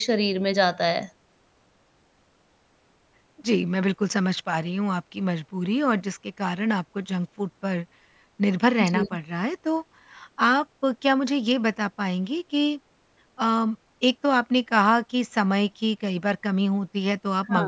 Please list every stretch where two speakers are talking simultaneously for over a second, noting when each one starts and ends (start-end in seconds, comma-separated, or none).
none